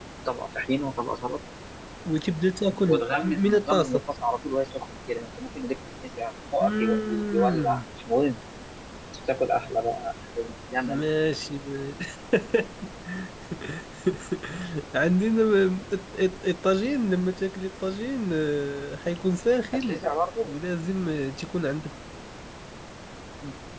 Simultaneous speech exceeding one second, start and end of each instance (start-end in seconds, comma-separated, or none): 2.7-4.0, 6.6-7.8